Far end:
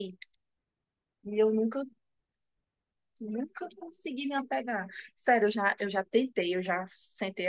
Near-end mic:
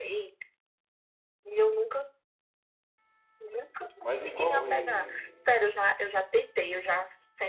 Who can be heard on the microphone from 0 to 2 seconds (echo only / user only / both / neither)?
echo only